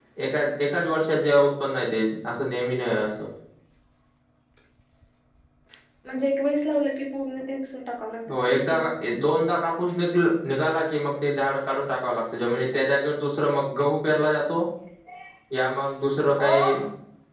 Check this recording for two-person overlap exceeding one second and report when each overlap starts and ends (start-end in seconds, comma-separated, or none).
none